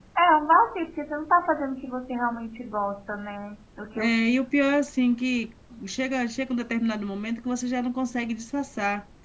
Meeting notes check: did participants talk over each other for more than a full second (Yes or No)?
No